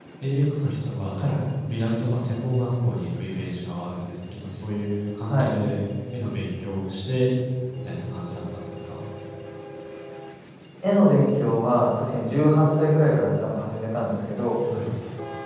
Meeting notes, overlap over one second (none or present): none